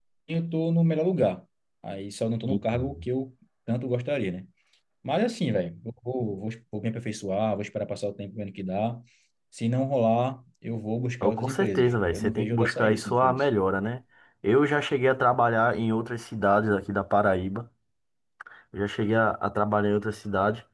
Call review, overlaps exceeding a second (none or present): present